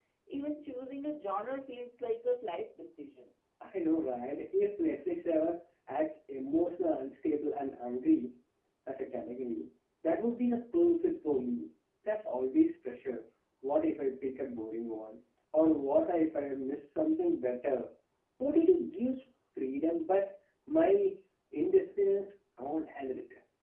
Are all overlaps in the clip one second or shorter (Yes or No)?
Yes